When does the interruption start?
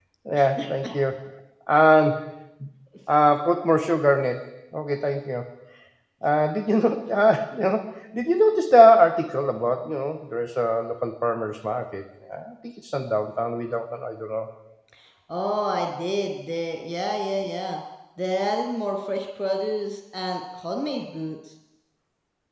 none

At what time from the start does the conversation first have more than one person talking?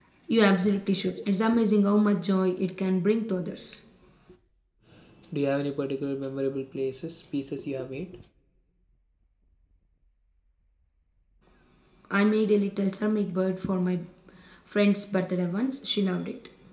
none

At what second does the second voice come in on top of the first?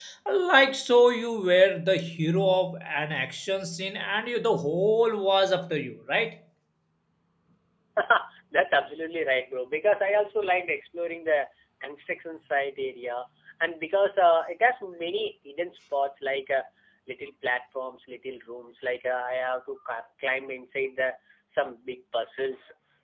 none

